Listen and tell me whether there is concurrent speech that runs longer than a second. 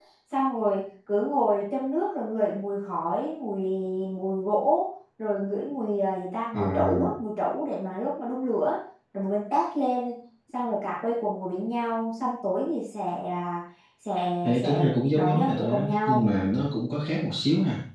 Yes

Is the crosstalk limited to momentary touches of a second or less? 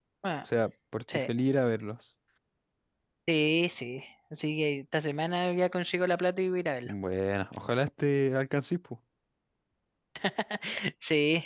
Yes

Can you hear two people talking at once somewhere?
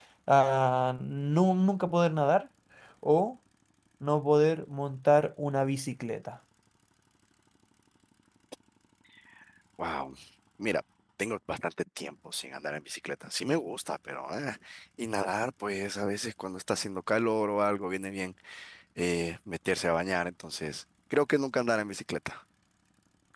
No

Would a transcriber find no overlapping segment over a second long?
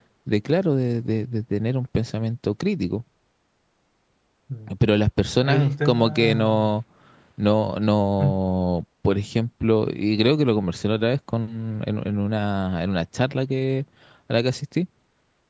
No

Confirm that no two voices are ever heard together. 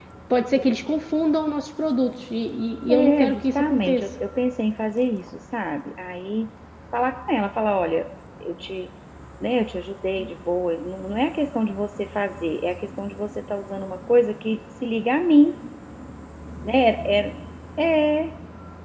No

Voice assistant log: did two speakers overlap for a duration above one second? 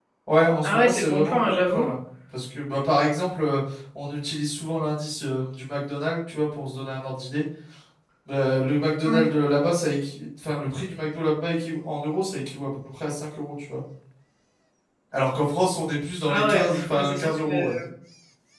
Yes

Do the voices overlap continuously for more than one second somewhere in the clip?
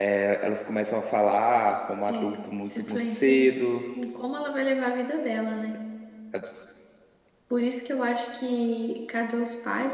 Yes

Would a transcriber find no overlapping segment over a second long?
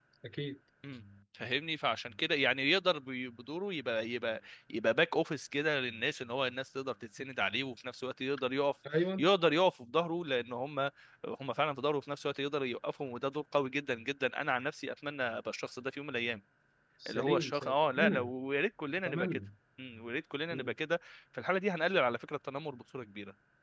No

